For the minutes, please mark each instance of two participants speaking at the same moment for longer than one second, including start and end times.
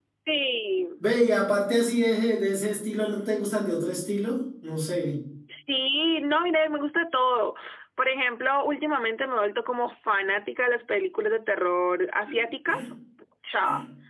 none

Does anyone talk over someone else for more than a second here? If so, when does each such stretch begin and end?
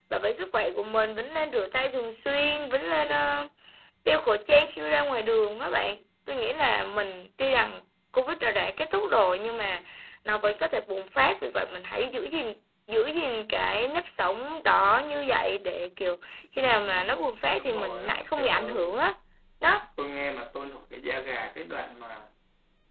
17.6-18.8

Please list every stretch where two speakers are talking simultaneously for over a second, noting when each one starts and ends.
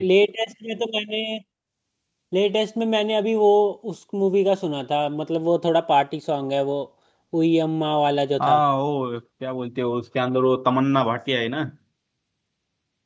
none

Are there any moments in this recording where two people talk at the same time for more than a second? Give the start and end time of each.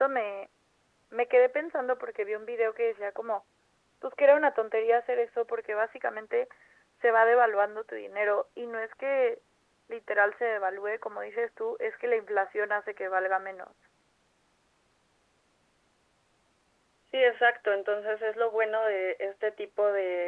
none

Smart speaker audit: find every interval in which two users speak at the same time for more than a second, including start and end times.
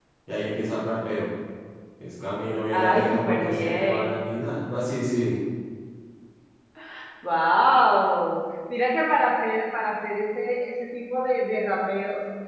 2.7-4.0

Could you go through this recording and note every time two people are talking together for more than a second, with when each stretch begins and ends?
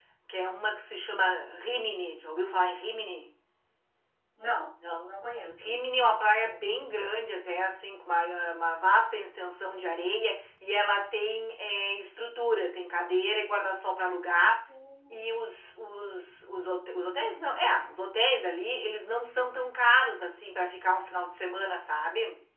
none

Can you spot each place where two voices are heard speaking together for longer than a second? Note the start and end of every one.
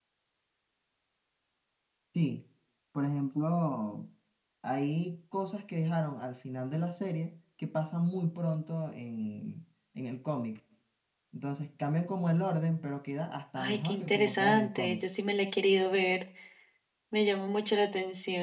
13.6-15.1

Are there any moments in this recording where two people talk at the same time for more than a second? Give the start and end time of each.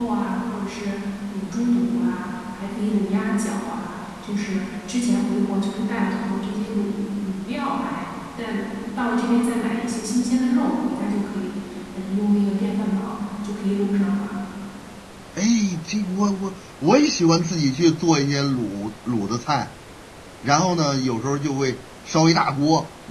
none

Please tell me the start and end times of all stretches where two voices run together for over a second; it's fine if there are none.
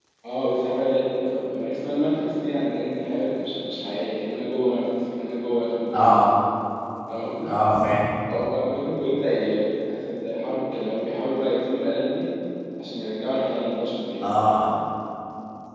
none

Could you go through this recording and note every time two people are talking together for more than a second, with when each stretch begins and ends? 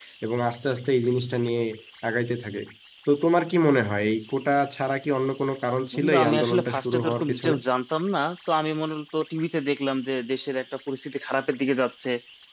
5.9-7.5

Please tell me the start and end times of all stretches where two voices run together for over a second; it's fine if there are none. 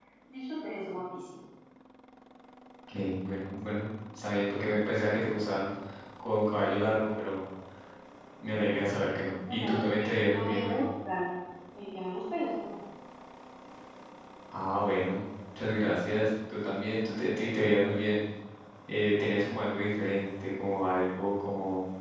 9.5-10.8

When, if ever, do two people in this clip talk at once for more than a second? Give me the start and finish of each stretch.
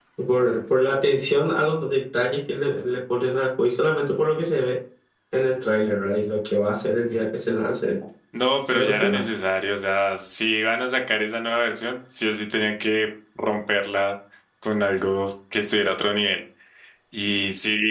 none

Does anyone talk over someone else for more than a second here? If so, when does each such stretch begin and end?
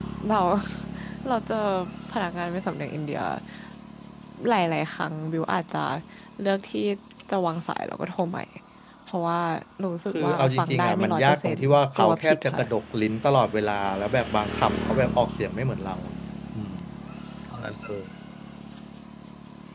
10.1-12.6

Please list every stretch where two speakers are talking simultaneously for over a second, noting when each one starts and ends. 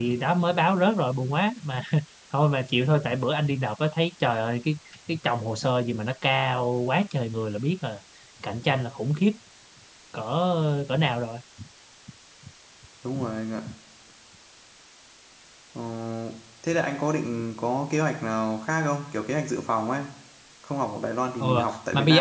none

